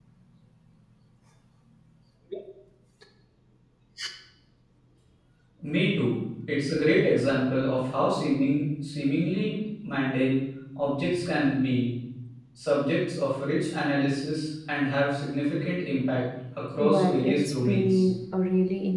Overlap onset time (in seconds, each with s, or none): 16.8 s